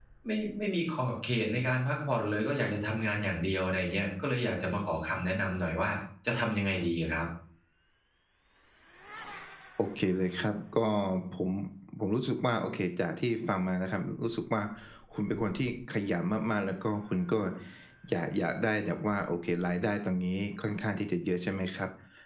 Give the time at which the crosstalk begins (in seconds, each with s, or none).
none